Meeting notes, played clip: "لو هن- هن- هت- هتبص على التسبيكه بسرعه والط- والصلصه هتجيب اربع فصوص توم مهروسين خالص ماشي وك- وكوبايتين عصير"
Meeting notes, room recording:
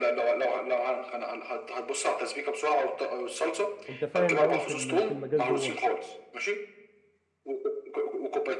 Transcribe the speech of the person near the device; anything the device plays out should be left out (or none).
انت فاهم قوي في ال- في المجال دوت